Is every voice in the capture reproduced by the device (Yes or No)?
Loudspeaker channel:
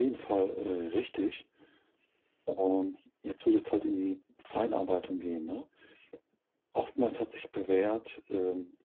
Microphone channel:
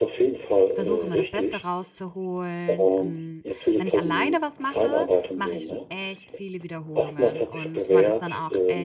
No